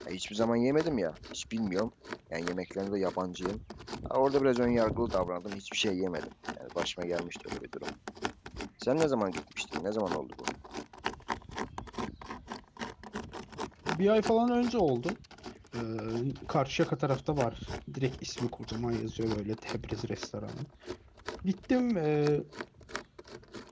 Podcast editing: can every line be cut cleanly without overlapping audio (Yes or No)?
Yes